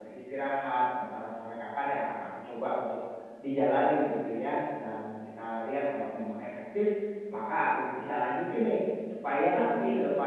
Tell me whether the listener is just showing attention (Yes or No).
Yes